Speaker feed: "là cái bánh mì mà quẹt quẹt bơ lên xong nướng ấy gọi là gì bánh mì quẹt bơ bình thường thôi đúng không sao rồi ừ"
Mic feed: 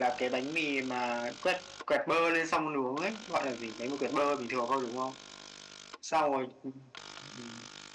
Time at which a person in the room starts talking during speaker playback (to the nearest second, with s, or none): none